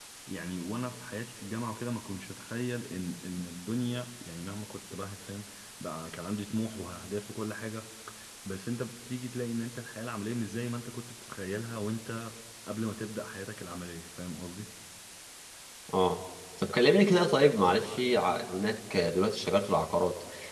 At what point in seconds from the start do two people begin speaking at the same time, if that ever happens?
none

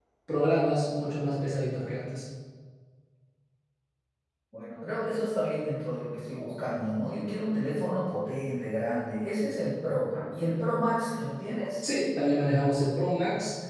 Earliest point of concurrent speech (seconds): none

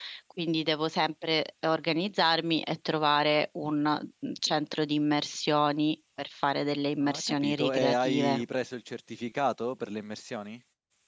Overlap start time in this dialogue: 7 s

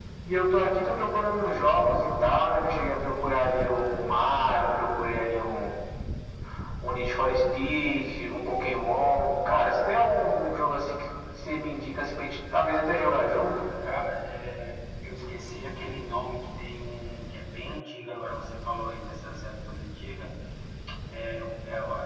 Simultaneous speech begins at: none

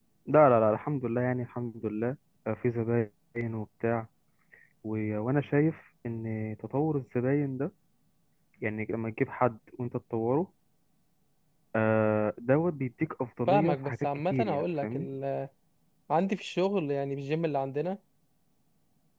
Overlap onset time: 13 s

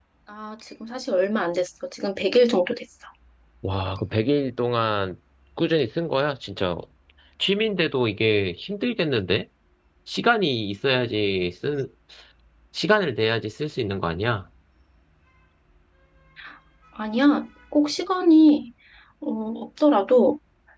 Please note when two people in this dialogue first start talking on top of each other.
none

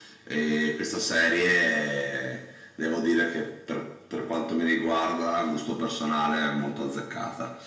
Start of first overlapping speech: none

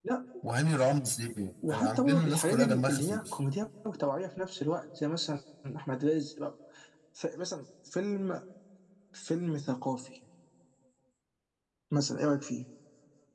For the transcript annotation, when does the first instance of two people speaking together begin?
2 s

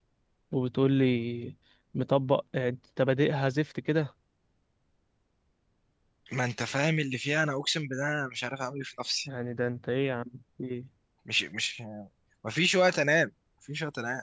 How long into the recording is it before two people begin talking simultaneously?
none

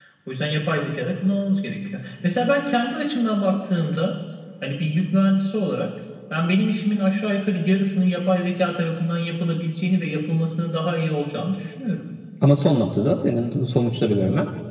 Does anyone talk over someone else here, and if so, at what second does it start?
none

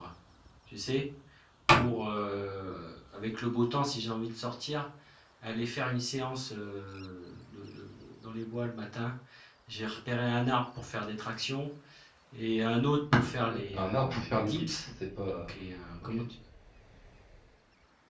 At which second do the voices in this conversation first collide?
13 s

